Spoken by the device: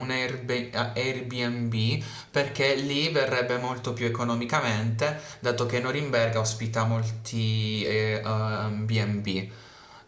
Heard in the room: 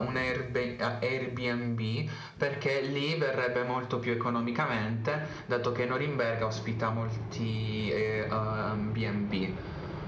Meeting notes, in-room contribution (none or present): none